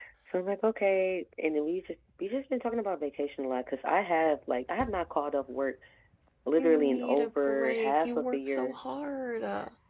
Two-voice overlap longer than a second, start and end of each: 6.6-8.8

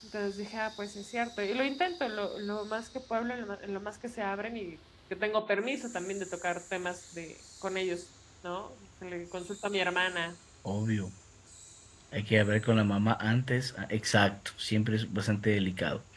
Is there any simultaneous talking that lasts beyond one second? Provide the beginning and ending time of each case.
none

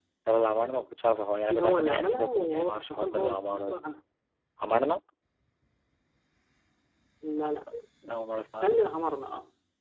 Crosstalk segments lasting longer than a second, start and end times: 1.5-3.8

